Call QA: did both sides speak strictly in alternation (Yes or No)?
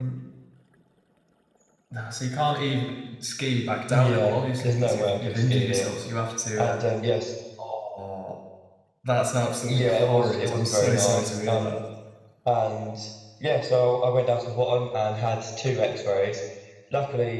No